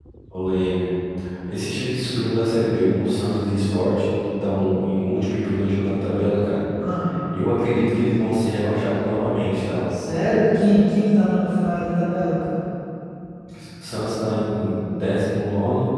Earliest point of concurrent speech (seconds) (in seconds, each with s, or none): none